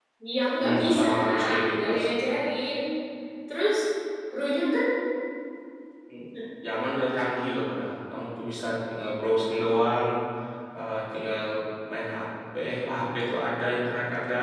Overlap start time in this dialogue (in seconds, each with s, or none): 0.6 s